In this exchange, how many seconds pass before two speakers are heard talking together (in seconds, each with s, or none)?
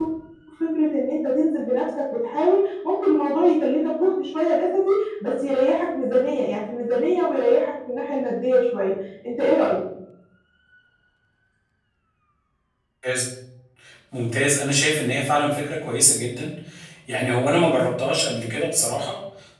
none